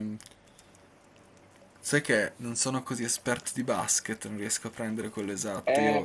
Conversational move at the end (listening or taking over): taking over